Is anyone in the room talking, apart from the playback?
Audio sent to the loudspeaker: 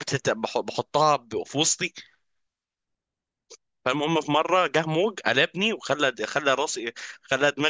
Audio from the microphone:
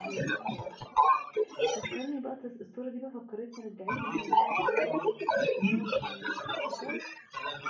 Yes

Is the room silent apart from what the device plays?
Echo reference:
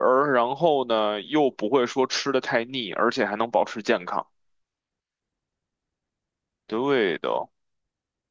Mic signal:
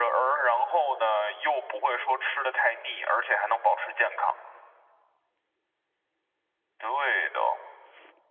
Yes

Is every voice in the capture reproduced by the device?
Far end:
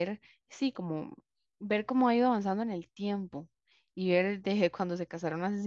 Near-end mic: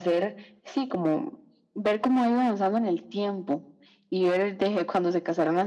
Yes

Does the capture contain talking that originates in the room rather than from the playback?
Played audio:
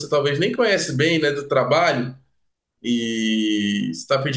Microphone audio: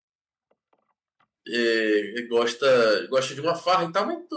Yes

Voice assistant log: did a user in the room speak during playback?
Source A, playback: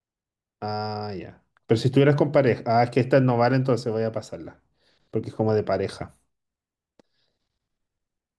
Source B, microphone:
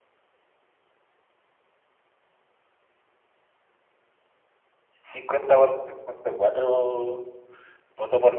Yes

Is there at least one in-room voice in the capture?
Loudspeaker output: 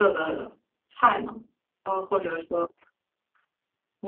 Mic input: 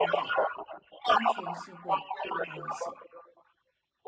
Yes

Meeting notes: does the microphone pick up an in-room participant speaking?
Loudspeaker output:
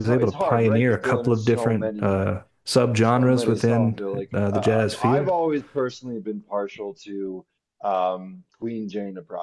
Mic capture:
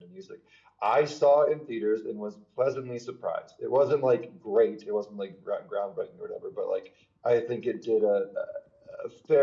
Yes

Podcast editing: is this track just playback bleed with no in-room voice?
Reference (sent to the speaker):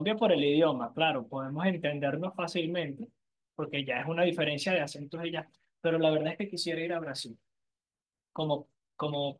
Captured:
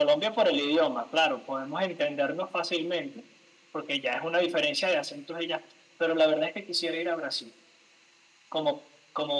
Yes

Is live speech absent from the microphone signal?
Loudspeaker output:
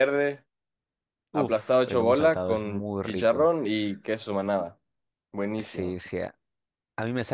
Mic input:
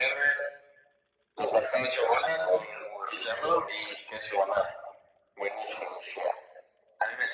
Yes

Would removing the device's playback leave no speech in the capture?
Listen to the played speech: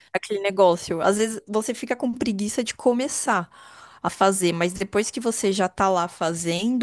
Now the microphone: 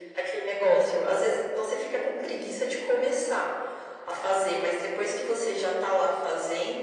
Yes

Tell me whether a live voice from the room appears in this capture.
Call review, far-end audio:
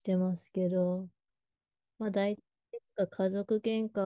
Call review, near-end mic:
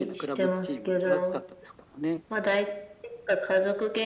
Yes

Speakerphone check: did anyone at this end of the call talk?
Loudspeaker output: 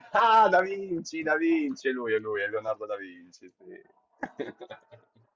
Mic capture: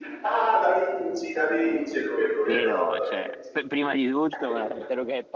Yes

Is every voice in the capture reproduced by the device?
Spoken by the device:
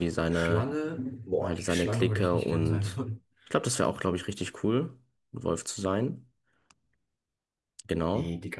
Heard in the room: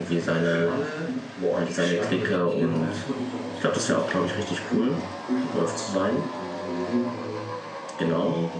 No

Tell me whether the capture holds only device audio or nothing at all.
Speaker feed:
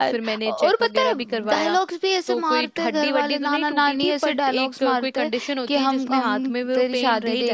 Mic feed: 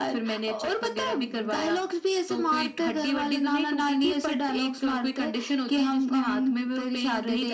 Yes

